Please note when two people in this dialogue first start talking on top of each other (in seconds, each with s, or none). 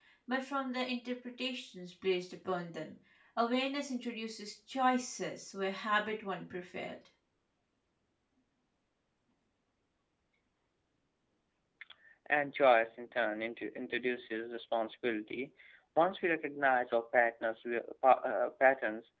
none